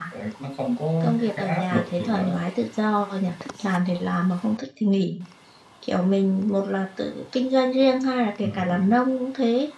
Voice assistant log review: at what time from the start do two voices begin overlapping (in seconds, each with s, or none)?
1.0 s